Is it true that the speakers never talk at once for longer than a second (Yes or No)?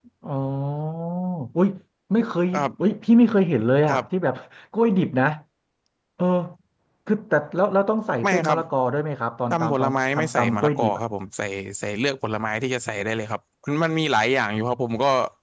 No